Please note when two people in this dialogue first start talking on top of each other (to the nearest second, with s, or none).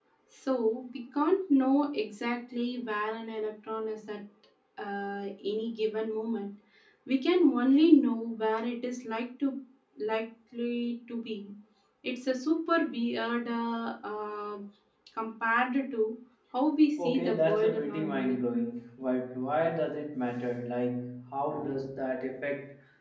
17 s